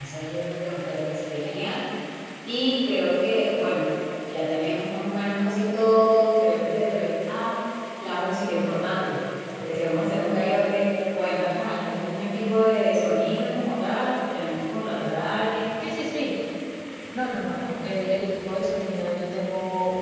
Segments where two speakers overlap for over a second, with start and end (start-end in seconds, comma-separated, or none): none